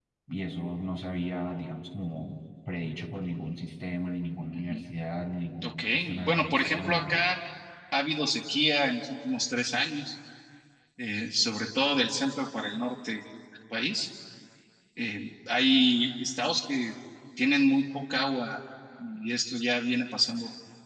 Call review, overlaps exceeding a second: present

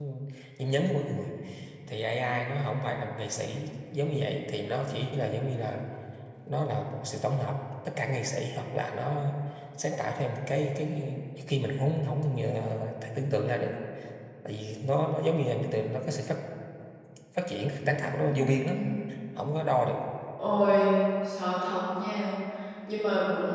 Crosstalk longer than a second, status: none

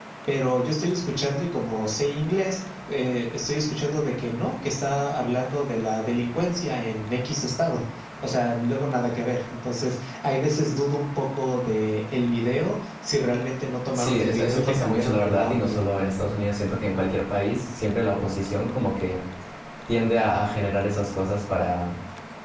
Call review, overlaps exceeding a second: present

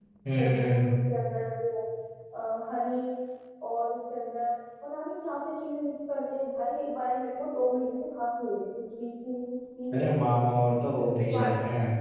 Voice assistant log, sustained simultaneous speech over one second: none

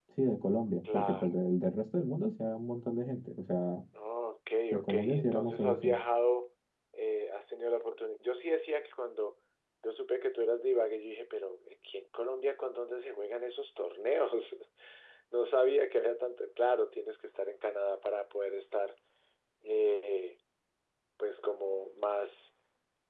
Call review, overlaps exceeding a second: present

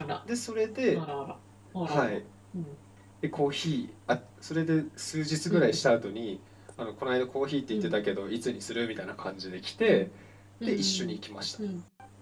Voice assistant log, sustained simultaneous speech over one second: none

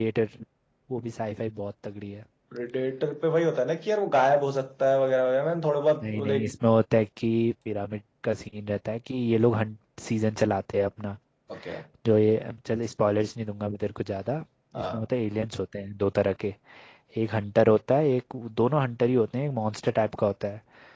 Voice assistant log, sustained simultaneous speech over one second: none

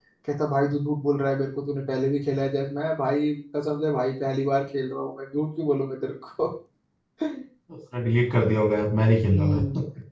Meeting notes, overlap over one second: none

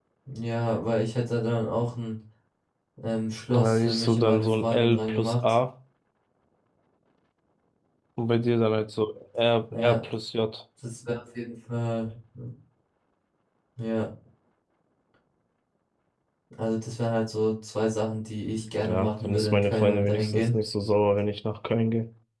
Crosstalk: present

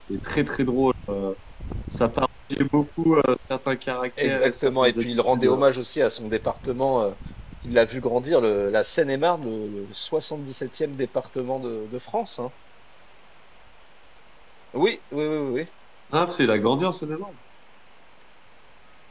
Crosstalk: present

